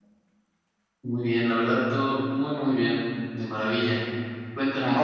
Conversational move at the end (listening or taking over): taking over